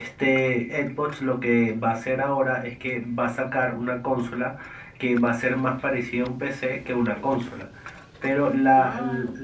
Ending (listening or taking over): listening